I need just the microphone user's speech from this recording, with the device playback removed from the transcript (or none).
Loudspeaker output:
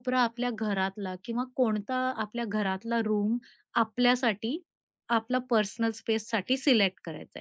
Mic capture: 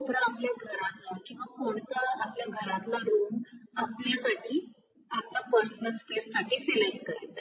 none